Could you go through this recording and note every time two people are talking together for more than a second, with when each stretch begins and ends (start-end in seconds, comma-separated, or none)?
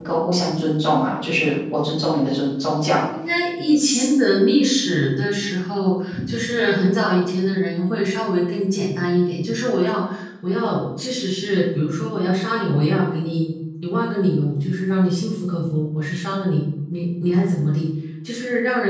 none